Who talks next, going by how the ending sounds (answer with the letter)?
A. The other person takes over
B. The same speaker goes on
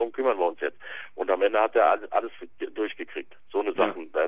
B